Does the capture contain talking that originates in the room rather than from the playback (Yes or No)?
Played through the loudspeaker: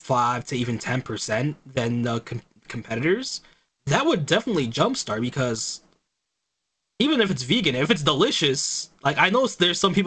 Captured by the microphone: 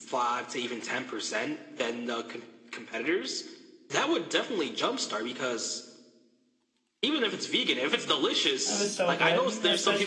Yes